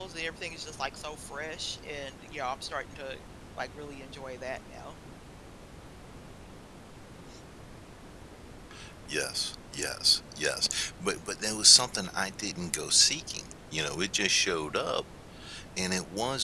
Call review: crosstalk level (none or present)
none